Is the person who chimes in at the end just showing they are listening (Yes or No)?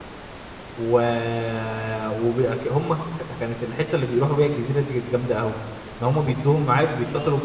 Yes